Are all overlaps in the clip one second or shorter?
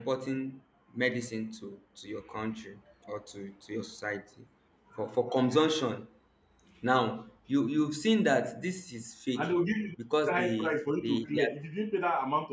No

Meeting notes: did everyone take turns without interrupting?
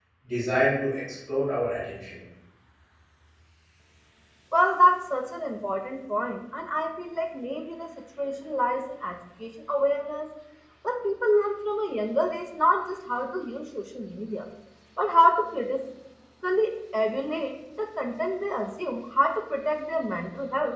Yes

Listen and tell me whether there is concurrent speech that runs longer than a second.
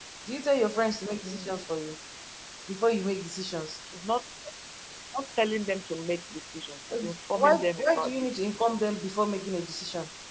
Yes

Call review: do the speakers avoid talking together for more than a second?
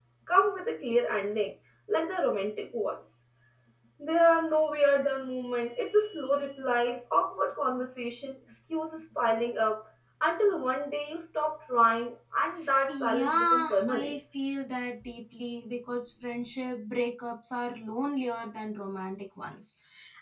No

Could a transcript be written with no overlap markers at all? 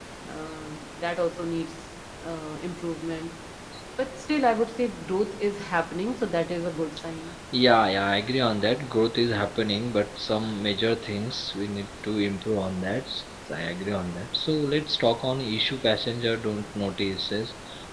Yes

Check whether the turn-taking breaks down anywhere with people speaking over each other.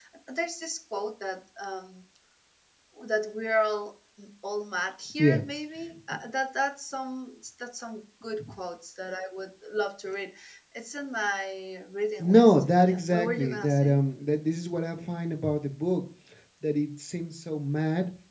Yes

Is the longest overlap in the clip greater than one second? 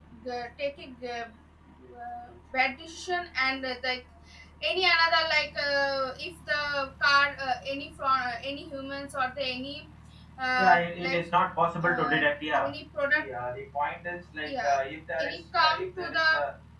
Yes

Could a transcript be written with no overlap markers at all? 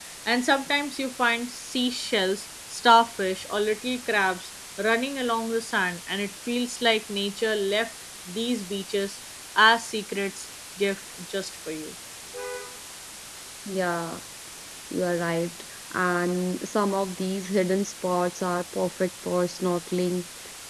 Yes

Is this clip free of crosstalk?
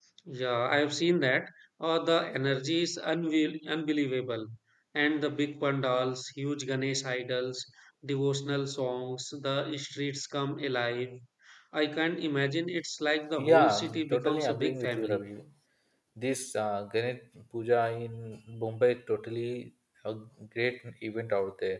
No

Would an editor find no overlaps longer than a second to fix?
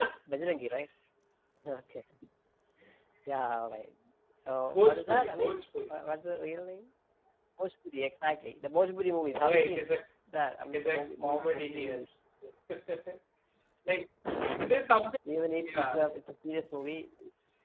No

